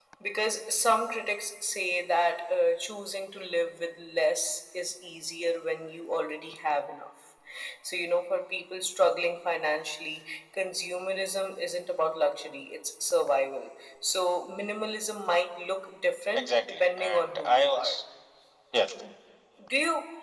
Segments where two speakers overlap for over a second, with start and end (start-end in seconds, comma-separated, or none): 16.4-18.0